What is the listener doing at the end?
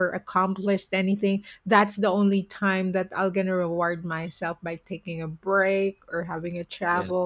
listening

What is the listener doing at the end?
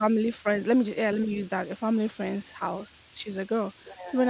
listening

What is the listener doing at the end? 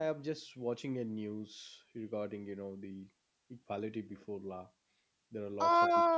taking over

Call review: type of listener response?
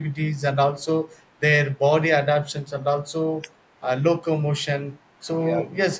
listening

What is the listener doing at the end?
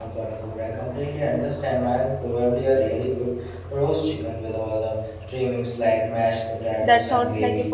taking over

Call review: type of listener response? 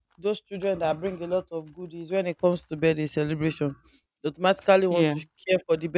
listening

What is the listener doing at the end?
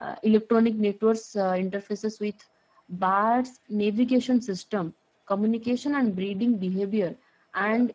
listening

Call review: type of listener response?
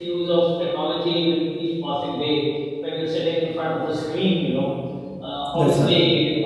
listening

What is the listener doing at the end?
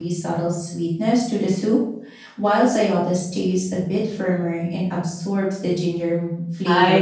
taking over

